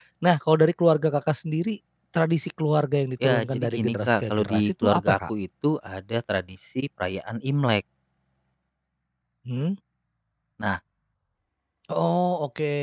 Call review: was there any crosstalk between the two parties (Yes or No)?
Yes